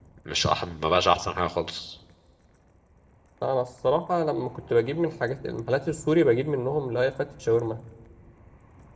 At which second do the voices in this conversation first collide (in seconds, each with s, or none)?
none